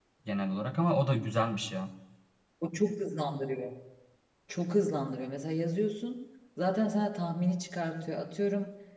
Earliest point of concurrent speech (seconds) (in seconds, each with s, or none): none